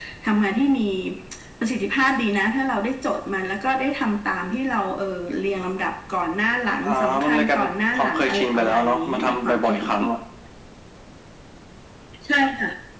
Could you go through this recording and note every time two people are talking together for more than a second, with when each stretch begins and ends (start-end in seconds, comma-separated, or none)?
6.8-10.1